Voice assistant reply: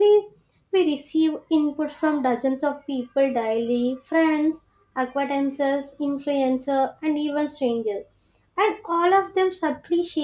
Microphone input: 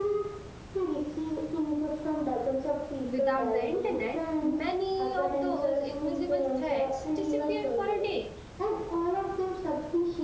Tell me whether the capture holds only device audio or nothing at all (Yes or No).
No